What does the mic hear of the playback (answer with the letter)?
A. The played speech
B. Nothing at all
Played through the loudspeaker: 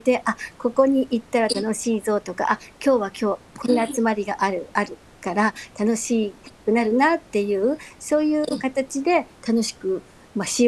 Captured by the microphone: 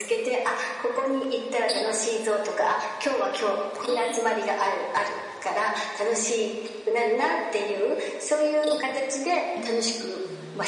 A